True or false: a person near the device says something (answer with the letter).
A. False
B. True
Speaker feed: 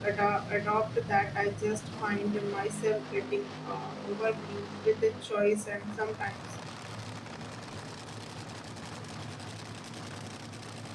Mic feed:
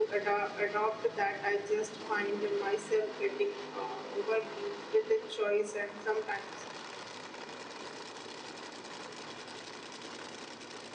A